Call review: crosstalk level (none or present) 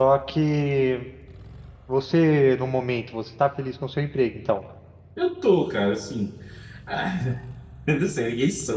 none